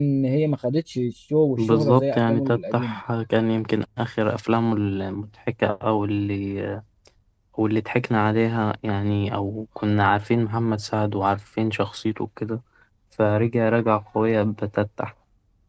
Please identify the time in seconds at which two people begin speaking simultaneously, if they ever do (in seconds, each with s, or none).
1.6 s